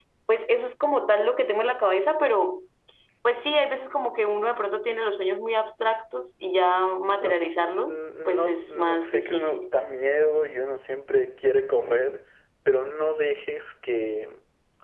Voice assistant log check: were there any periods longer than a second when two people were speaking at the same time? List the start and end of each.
7.9-9.7

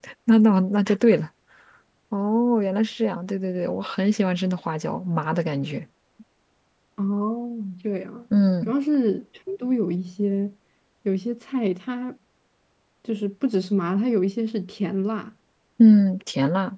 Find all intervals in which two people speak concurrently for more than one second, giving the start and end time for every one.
none

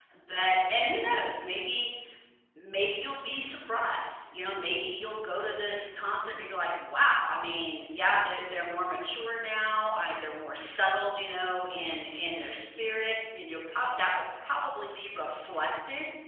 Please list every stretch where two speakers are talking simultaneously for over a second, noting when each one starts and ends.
none

